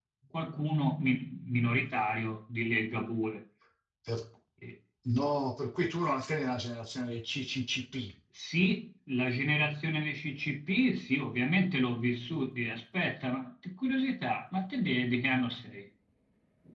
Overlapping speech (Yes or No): No